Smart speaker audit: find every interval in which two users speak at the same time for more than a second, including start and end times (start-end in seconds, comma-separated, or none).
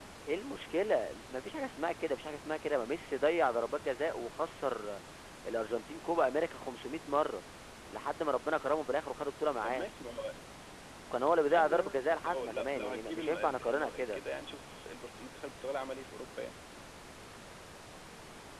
11.5-14.2